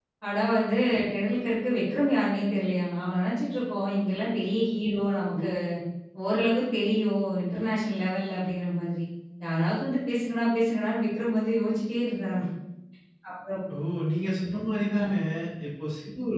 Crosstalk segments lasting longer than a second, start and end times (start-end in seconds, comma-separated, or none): none